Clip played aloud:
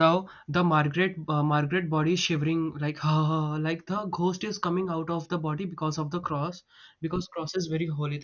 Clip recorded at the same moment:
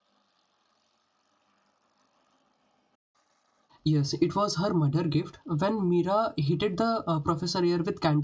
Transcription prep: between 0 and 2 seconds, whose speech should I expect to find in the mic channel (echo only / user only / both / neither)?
neither